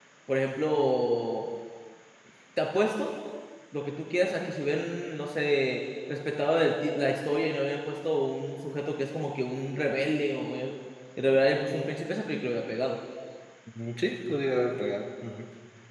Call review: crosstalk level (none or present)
none